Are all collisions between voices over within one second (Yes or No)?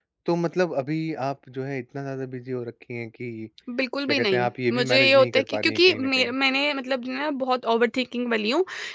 No